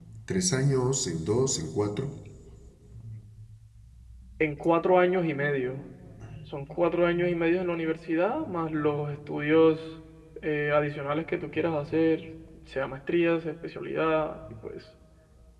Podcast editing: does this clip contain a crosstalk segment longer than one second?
No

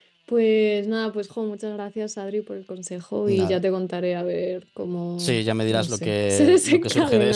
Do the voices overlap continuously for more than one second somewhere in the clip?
Yes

